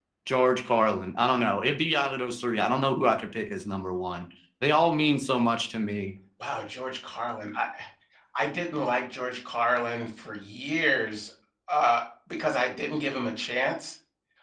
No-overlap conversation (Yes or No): Yes